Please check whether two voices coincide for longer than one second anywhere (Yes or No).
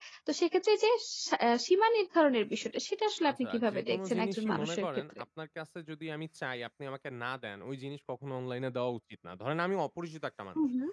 Yes